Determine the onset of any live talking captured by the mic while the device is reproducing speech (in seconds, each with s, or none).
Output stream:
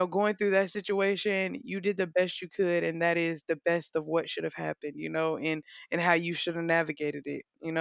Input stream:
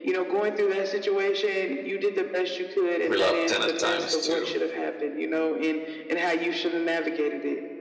3.0 s